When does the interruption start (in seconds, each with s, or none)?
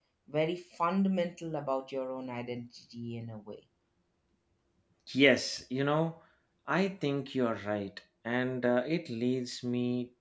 none